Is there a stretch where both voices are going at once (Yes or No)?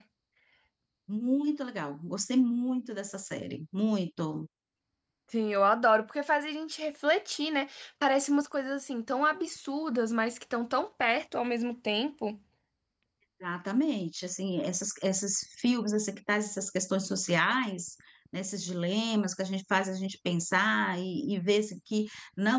No